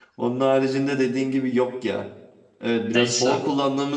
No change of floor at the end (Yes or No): Yes